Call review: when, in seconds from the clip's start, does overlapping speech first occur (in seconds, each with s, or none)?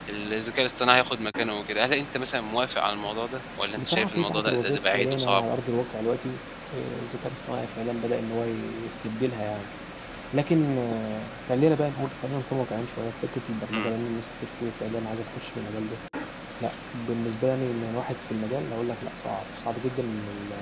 3.8 s